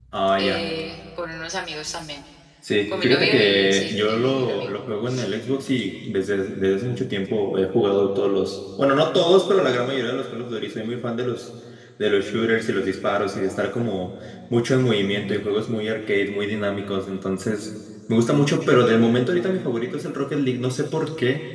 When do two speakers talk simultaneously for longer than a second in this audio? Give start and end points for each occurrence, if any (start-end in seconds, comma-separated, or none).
3.0-4.7